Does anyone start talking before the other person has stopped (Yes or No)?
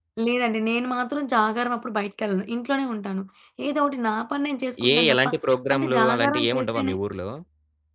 Yes